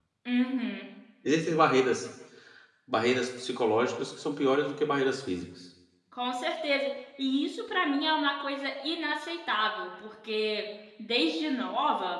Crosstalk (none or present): none